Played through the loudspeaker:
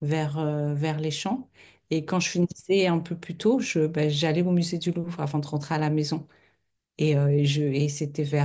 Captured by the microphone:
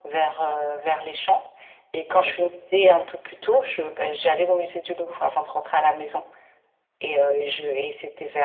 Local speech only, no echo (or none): Ouais, ok.